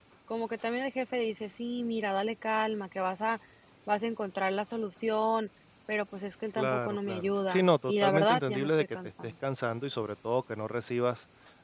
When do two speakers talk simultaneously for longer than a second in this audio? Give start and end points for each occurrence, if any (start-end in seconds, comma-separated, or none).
6.6-9.3